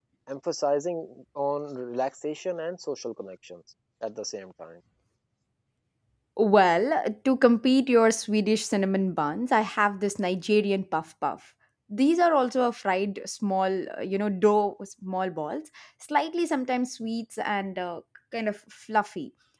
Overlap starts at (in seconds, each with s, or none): none